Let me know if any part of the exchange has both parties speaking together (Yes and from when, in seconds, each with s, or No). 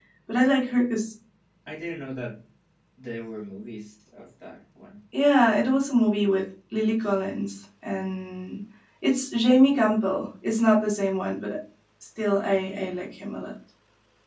No